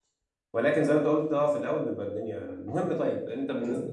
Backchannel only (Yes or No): Yes